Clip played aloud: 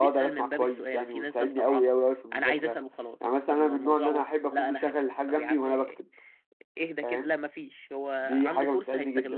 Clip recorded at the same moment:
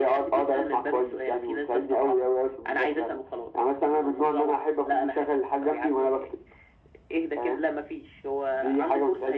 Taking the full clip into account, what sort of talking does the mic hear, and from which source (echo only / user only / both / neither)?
echo only